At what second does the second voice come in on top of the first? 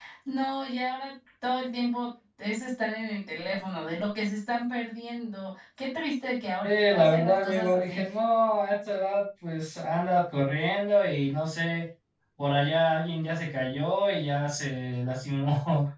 6.6 s

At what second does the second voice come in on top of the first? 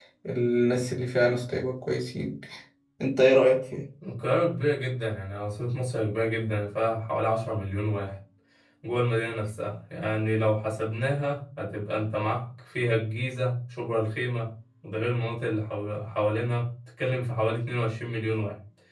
none

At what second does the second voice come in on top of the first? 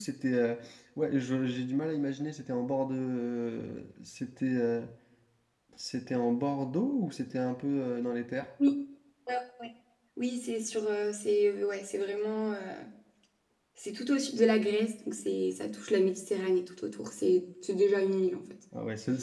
none

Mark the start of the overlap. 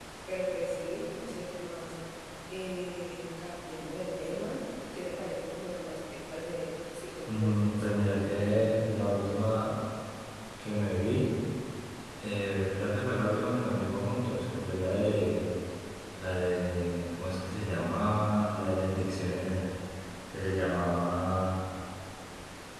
7.3 s

